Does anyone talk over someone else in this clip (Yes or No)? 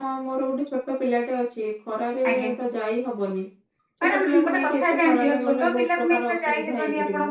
Yes